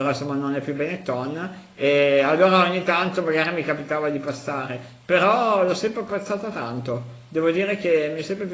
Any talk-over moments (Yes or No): No